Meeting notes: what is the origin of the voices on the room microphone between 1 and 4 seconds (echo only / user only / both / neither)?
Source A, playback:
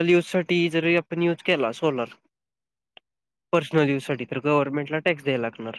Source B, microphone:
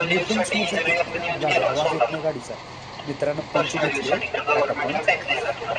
both